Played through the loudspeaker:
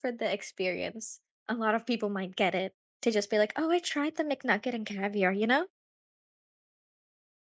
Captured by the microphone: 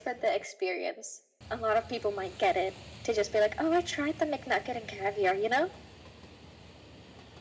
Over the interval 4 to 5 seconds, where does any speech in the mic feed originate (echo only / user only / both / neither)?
echo only